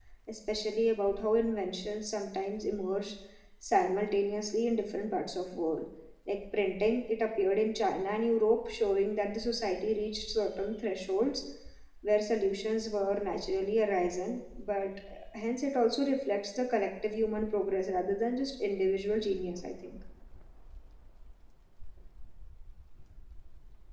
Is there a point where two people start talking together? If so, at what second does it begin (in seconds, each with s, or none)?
none